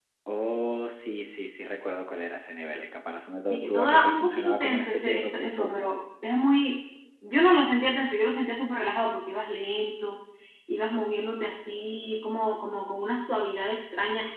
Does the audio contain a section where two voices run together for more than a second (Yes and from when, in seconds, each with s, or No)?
Yes, from 3.5 s